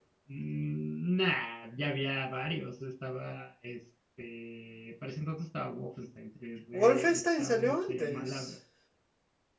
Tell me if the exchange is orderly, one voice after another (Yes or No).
No